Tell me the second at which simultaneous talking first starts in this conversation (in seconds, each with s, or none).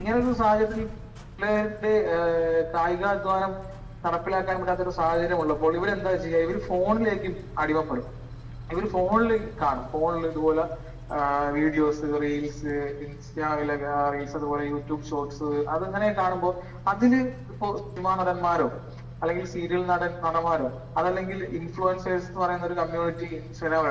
none